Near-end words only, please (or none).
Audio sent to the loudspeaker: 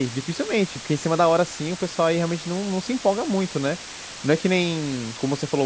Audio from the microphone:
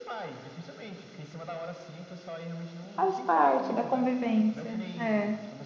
faz parte da convivência. É.